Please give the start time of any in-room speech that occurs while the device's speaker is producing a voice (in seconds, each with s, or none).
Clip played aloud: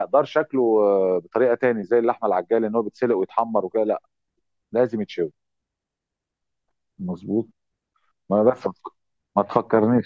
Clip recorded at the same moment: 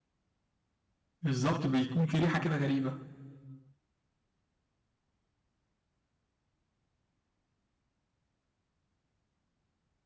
1.2 s